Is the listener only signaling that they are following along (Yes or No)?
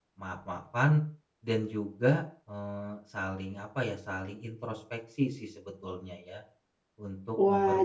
No